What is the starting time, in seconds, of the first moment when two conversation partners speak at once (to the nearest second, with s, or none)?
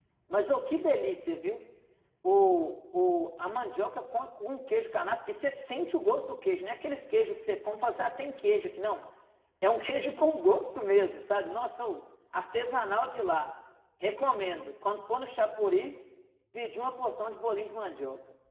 none